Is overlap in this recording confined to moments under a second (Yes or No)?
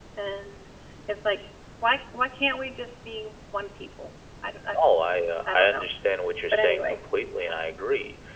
Yes